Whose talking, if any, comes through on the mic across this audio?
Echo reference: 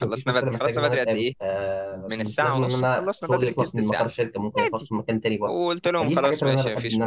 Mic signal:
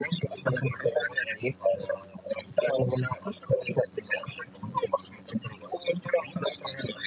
echo only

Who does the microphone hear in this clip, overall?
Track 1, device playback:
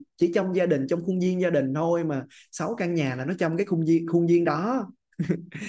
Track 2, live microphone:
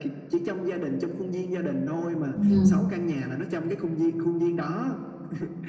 both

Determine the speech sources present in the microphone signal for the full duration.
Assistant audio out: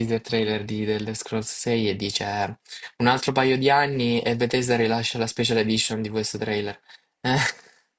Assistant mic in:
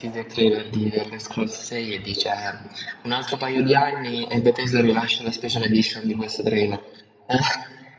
echo only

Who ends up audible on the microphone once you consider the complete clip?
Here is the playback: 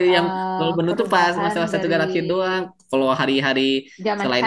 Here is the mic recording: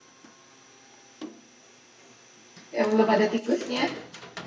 user only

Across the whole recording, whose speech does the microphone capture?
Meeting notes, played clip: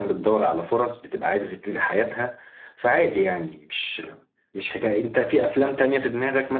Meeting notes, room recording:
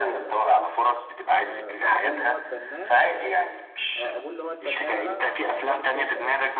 both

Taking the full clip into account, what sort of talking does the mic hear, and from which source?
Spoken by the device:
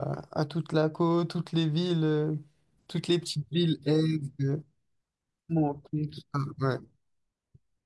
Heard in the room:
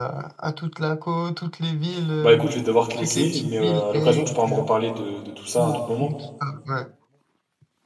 both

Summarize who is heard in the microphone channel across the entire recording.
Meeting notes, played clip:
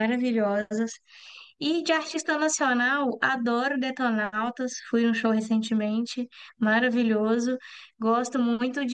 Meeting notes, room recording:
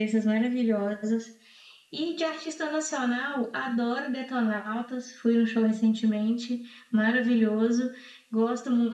echo only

